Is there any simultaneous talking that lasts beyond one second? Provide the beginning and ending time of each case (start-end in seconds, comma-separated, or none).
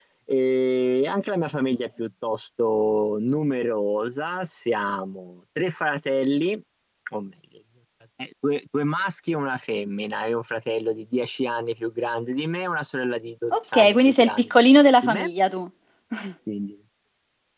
13.5-15.3